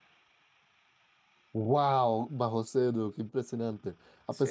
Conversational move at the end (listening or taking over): listening